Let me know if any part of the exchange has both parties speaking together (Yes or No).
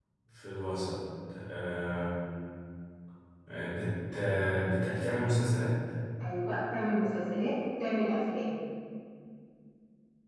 No